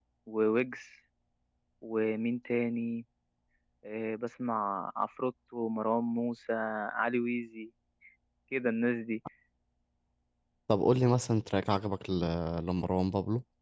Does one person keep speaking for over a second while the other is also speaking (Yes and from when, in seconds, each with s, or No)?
No